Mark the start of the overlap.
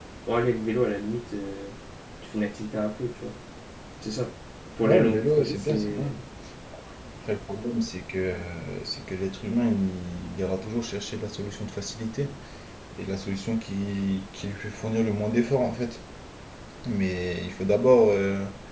4.8 s

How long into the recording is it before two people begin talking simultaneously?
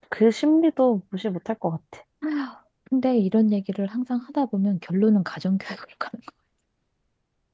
none

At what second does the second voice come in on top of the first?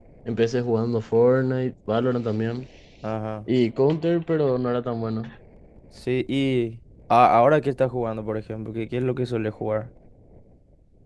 none

